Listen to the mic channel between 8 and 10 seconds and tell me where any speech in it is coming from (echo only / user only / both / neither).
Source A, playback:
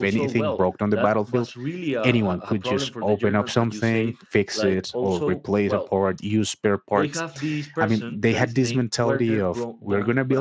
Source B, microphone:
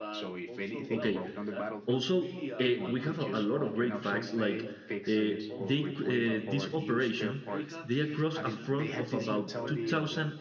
both